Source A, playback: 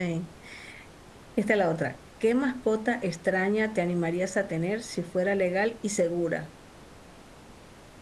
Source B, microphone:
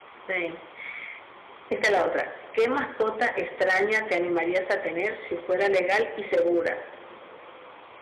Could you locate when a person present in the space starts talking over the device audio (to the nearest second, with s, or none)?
none